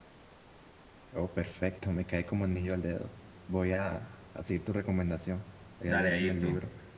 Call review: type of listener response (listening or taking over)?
taking over